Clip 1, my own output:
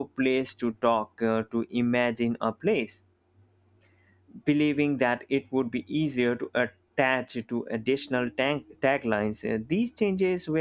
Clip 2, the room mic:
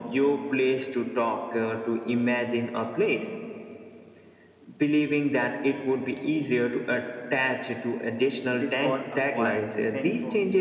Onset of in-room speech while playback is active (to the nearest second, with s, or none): 9 s